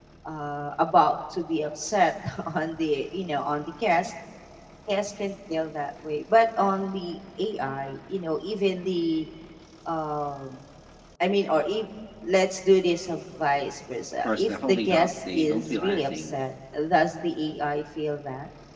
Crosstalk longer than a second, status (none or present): present